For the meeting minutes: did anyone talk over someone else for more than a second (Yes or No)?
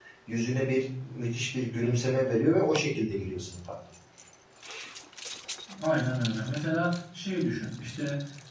No